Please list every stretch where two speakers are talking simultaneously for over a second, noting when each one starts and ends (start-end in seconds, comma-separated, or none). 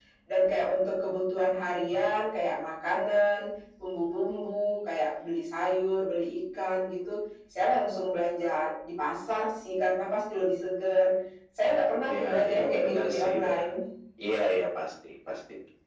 12.1-13.6